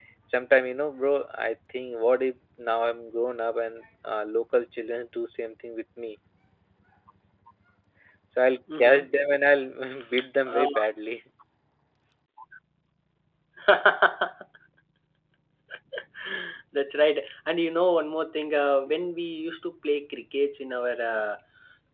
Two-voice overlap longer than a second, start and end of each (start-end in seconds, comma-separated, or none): none